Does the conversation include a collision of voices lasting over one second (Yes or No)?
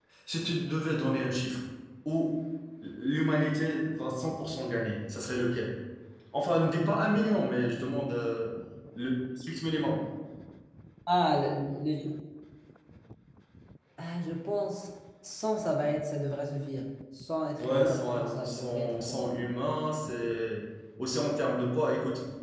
Yes